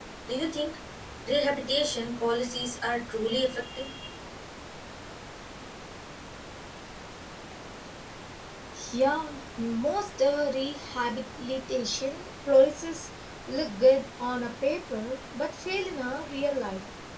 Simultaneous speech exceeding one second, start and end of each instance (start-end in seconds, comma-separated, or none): none